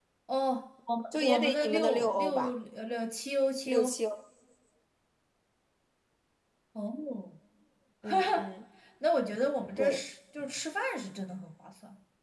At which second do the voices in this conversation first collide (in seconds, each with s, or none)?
1.1 s